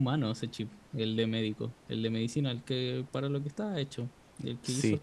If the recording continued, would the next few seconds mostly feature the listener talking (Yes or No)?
Yes